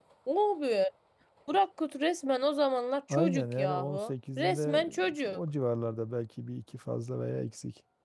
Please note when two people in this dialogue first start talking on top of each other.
3.1 s

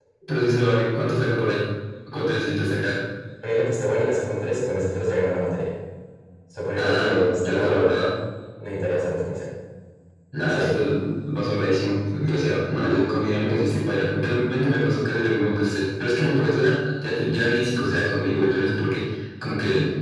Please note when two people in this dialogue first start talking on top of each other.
6.8 s

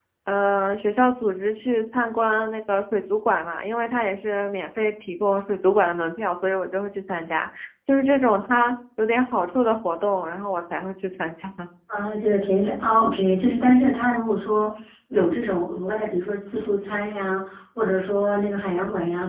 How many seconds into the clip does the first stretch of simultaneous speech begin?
none

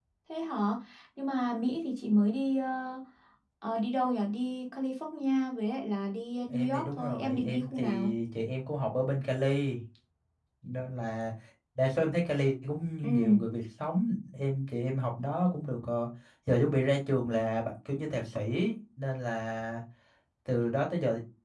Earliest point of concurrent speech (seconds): 6.5 s

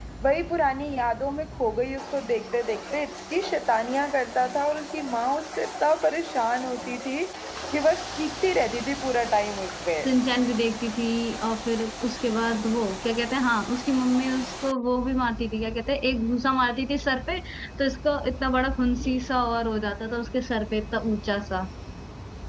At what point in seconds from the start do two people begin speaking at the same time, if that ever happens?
none

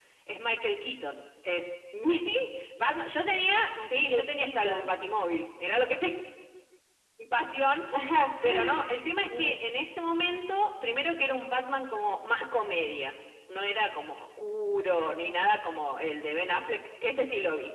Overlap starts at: 3.7 s

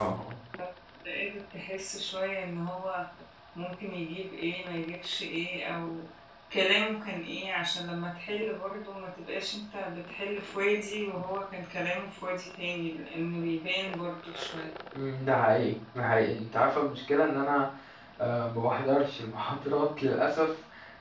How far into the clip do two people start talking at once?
none

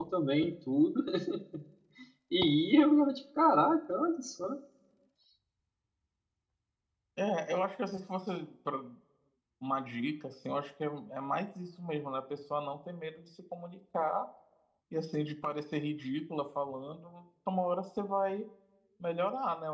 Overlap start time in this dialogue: none

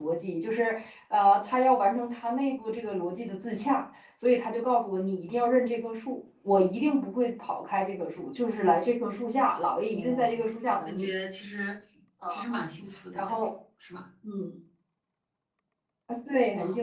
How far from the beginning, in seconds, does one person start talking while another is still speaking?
9.8 s

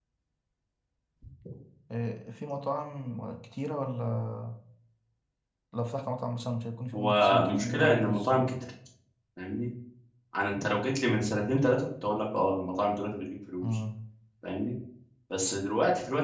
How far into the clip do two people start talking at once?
6.9 s

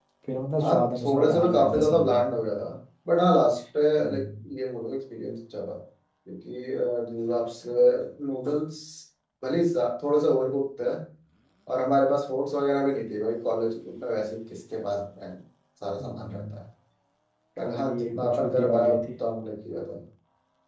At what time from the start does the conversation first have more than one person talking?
0.6 s

